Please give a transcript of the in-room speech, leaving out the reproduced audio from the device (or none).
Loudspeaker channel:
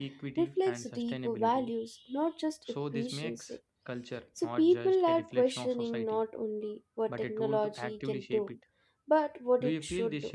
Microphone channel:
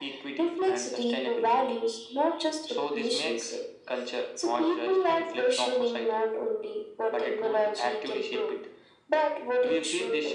none